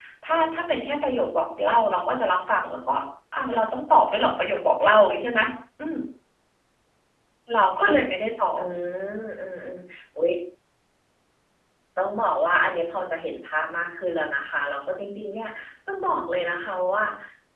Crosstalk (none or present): none